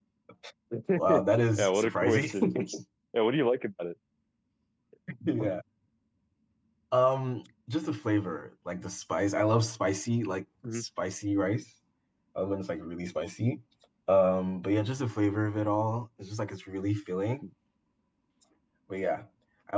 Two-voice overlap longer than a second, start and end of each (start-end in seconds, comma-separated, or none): 1.6-2.8